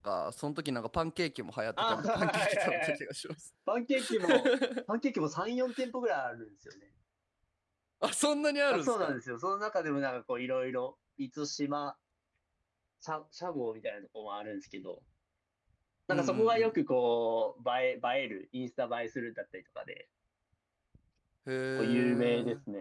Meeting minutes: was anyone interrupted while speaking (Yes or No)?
Yes